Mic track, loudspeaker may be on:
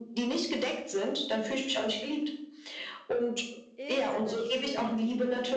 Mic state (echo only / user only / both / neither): both